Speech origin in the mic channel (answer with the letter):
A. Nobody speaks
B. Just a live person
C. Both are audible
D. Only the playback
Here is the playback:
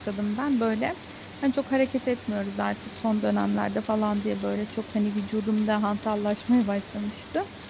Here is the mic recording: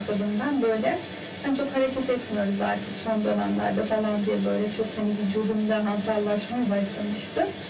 D